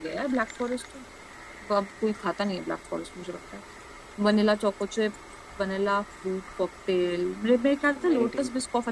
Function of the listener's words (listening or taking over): listening